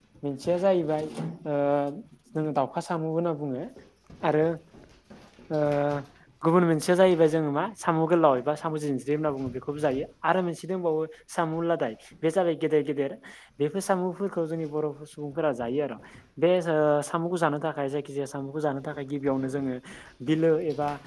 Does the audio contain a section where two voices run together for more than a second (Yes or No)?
No